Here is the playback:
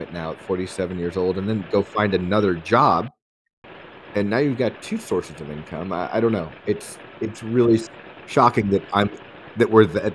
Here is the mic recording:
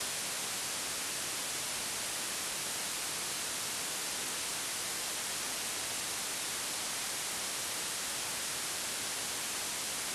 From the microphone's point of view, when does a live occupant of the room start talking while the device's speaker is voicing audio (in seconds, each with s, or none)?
none